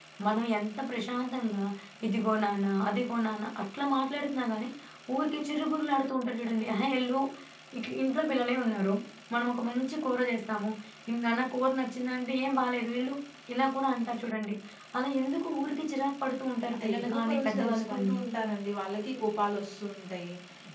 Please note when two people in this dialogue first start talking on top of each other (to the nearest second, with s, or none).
17 s